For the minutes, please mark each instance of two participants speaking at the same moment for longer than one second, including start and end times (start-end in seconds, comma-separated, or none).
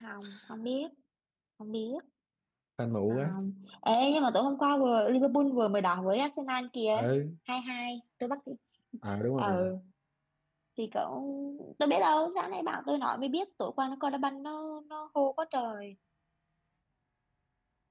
none